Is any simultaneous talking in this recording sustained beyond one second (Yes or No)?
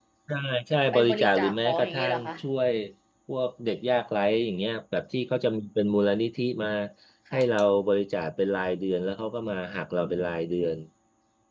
Yes